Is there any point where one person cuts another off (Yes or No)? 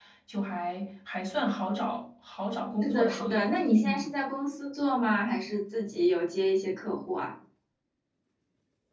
Yes